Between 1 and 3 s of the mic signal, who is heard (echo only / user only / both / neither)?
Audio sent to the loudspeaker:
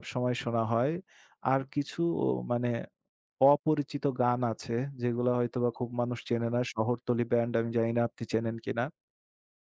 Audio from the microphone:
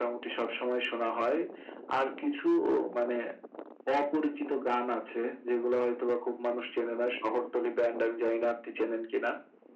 echo only